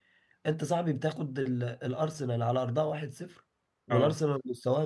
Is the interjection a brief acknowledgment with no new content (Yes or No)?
Yes